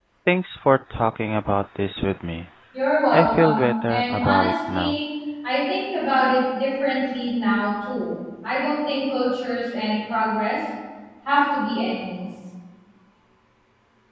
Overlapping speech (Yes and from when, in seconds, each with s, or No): Yes, from 3.1 s